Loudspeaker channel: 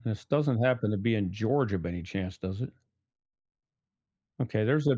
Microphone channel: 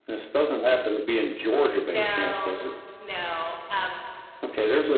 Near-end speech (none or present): present